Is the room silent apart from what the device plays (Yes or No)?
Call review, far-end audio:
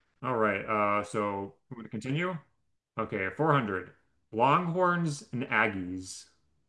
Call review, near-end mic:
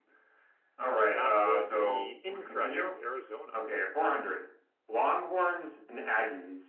No